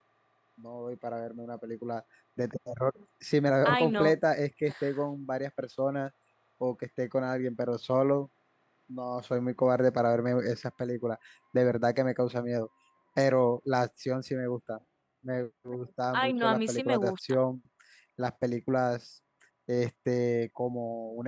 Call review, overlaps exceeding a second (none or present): present